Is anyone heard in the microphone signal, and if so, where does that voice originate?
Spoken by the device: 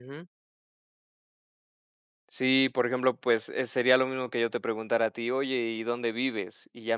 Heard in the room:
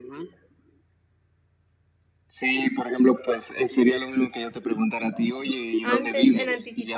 both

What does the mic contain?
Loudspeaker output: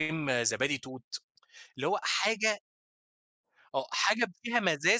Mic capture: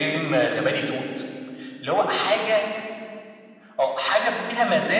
echo only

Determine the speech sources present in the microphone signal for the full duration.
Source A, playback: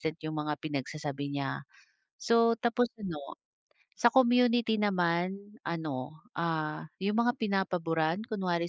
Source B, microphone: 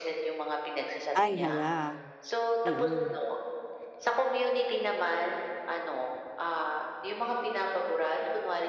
both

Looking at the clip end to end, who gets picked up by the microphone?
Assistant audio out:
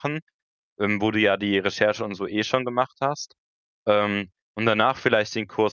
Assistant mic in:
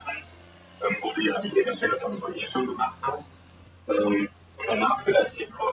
echo only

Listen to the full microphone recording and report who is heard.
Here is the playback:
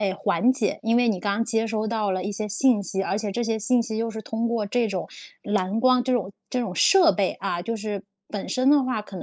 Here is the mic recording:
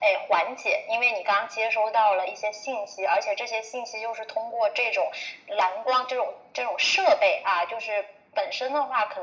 echo only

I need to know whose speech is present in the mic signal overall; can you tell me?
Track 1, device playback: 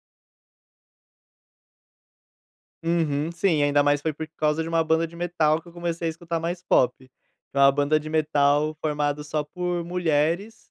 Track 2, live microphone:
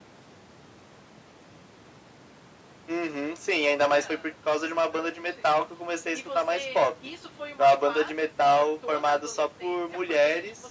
both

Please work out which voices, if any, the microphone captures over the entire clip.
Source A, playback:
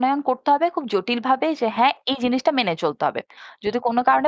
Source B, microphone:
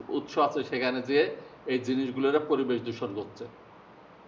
user only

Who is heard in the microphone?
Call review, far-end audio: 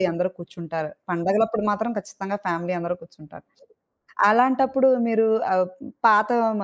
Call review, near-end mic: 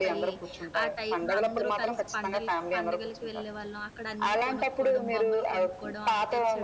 both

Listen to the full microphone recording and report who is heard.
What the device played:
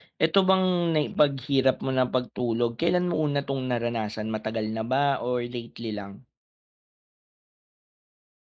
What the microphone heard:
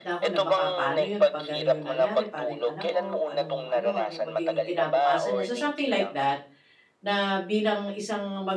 both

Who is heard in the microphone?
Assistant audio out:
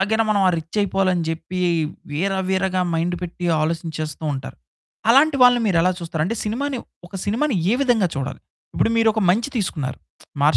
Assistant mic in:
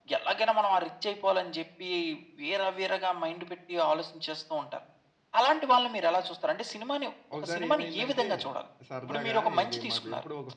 both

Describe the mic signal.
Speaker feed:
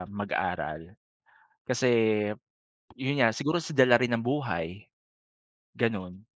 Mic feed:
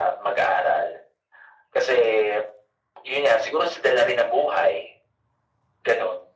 echo only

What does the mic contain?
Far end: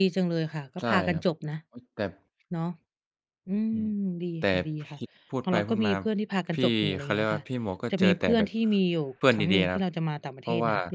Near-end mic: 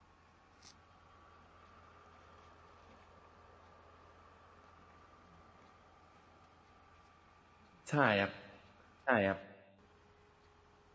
user only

